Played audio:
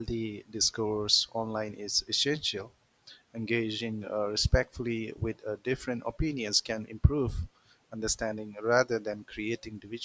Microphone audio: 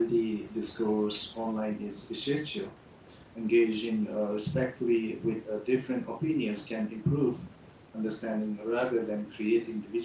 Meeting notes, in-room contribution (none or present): none